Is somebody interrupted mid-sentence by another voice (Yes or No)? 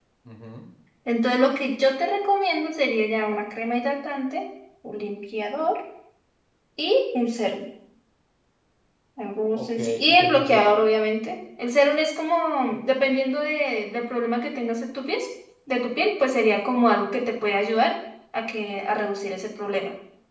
Yes